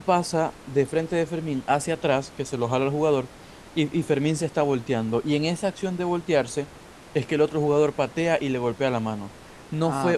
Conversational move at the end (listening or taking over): taking over